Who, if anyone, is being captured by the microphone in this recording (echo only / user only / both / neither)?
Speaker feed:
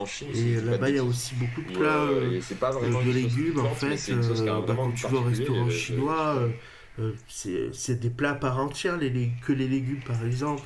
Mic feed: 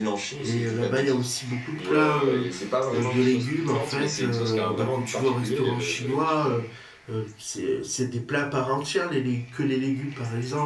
echo only